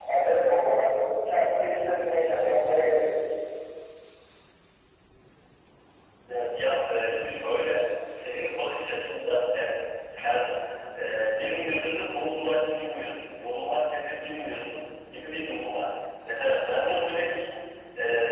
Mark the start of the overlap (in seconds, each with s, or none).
none